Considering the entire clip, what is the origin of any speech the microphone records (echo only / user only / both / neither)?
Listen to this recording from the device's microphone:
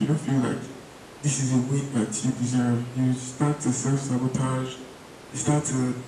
echo only